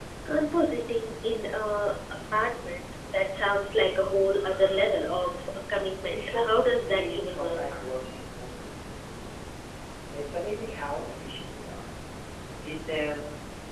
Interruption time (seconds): 6.1 s

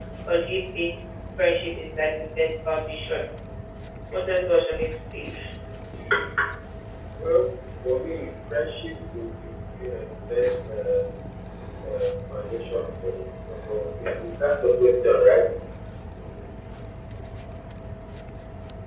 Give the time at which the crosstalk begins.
none

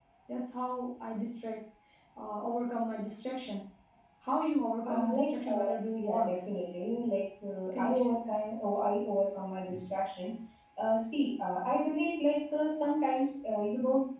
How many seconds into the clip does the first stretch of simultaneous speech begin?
4.8 s

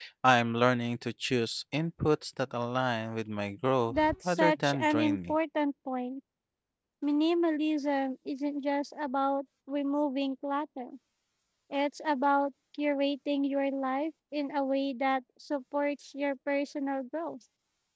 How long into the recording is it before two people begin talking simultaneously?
3.9 s

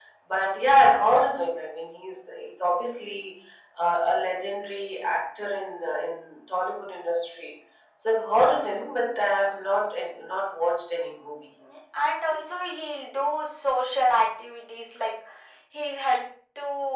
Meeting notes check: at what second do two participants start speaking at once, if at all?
none

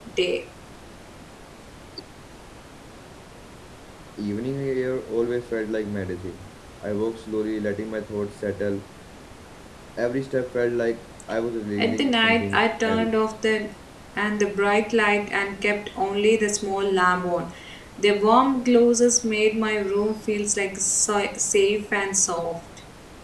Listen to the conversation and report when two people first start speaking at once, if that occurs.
11.8 s

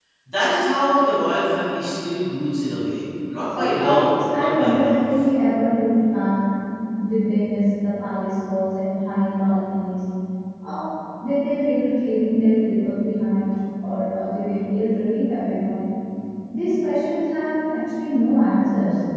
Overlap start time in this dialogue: 3.6 s

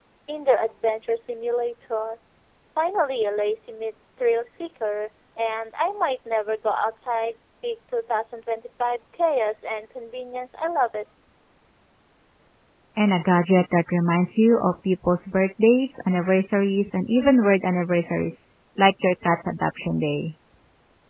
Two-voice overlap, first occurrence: none

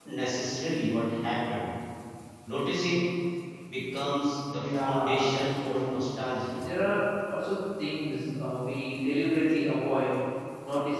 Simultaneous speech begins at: 4.5 s

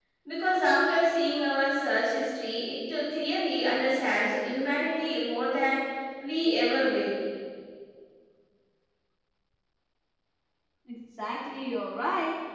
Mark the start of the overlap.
none

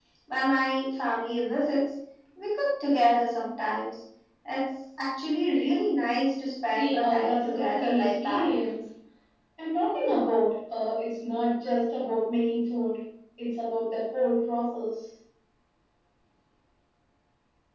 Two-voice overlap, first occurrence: 6.7 s

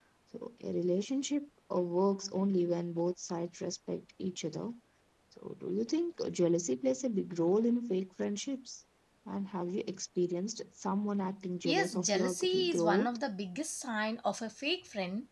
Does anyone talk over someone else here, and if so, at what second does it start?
11.6 s

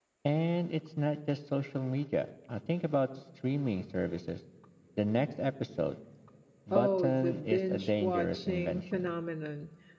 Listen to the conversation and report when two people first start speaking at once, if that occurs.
6.7 s

